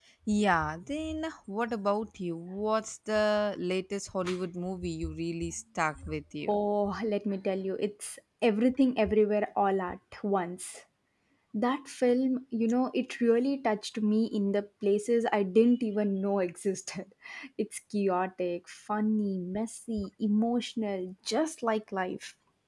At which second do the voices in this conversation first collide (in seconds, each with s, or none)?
none